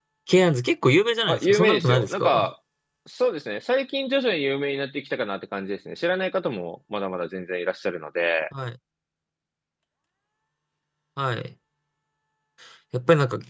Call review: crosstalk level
present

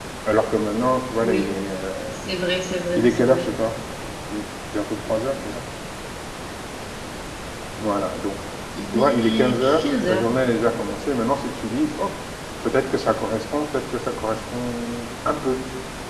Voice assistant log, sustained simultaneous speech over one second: present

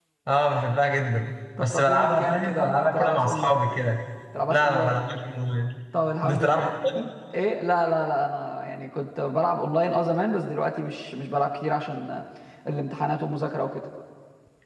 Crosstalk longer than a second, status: present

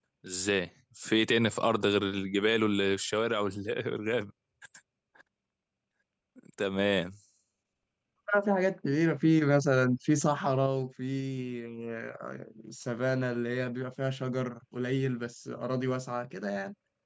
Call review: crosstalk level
none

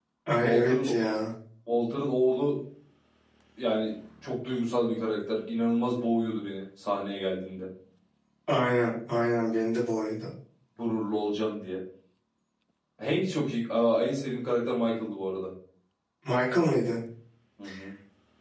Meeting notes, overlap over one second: none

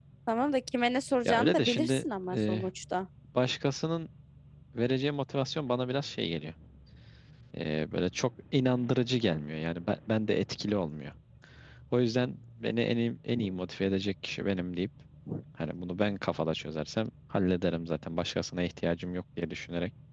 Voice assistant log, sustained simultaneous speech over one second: present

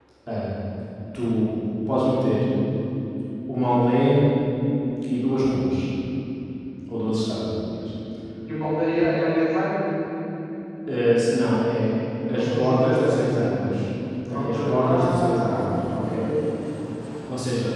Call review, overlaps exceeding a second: present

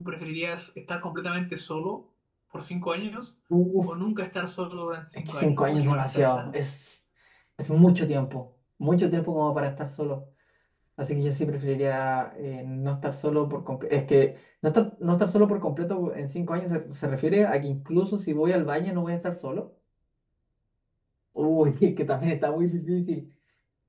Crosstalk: present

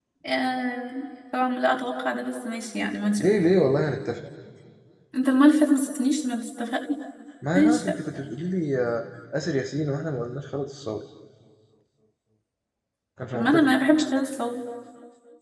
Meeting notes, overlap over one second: none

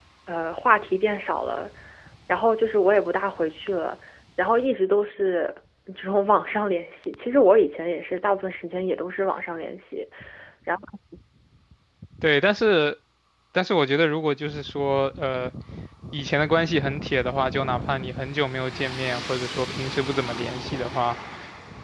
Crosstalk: none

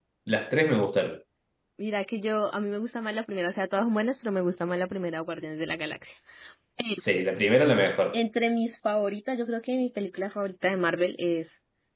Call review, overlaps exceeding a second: none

